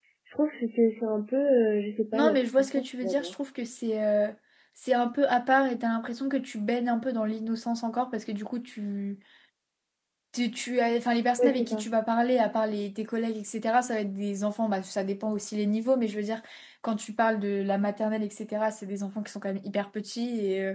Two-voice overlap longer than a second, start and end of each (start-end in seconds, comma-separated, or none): 2.1-3.3